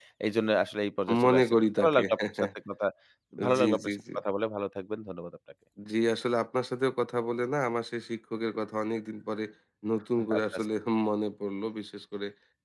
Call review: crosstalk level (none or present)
present